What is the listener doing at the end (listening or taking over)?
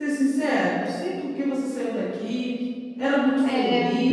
listening